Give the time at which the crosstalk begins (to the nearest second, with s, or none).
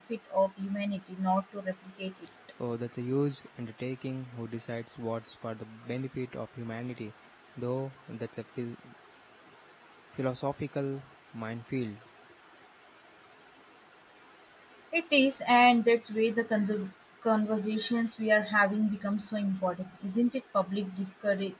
none